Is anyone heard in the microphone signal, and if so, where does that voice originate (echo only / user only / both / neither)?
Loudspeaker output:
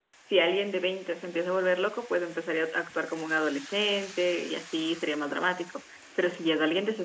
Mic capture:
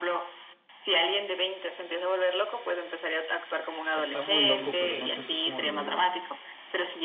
both